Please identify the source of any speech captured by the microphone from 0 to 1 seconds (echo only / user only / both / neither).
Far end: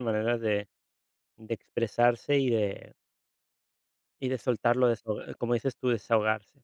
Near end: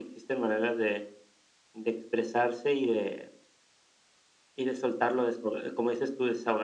echo only